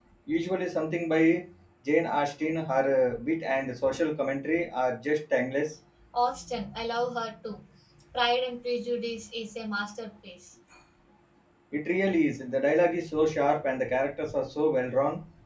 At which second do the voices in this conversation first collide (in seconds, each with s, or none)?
none